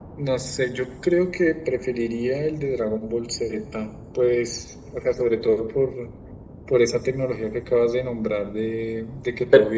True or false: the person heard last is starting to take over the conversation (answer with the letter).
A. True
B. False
B